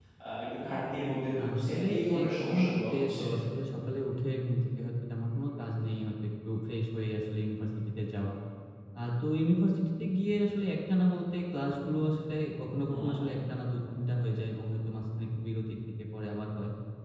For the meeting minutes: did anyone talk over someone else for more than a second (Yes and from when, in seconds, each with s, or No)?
Yes, from 1.4 s